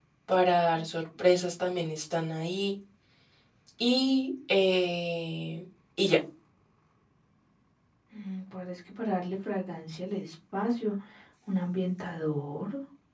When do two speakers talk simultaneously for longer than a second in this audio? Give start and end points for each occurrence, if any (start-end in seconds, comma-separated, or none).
none